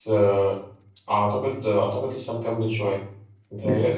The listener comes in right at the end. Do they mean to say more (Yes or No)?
No